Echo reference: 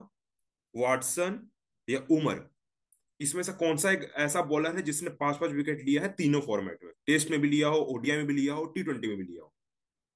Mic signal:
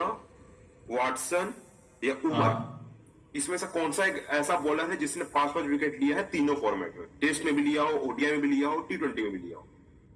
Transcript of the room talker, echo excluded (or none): हाँ